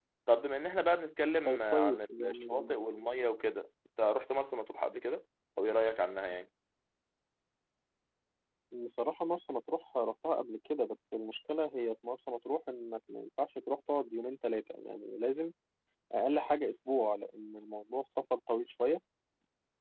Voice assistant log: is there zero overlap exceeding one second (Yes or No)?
No